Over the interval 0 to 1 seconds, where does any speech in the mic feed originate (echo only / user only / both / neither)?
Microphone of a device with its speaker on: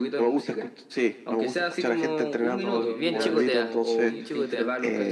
echo only